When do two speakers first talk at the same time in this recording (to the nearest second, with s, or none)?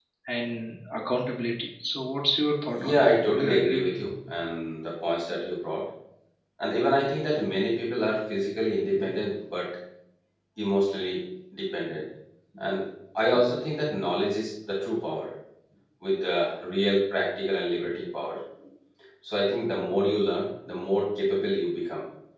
3 s